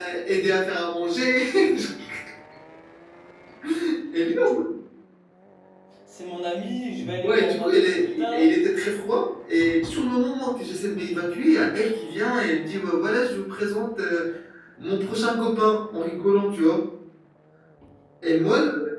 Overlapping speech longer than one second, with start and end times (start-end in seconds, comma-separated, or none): 7.2-8.5